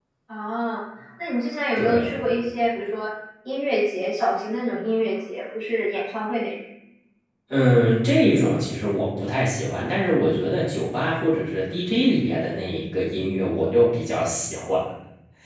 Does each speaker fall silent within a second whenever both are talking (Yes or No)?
Yes